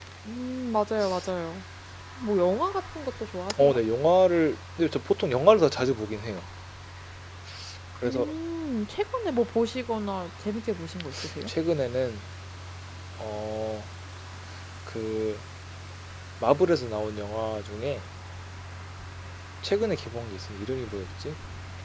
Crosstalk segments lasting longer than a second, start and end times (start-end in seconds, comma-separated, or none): none